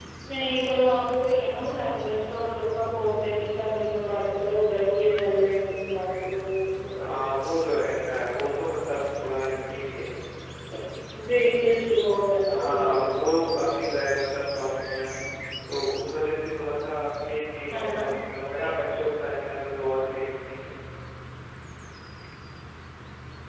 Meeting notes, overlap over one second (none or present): none